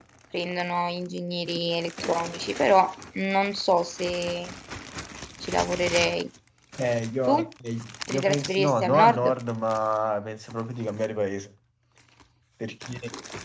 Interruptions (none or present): present